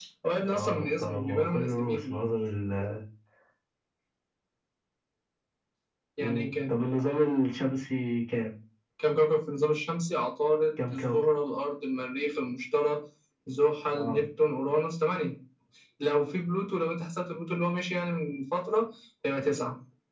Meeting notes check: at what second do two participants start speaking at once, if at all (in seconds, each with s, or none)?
0.5 s